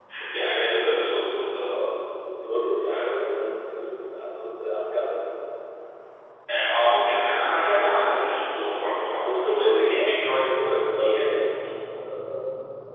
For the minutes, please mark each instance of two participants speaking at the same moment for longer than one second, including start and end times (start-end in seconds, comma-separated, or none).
9.2-11.7